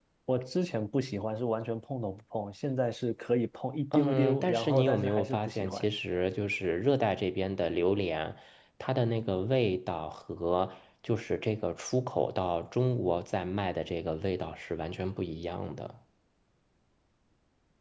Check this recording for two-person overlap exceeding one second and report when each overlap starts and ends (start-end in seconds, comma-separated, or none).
3.9-5.8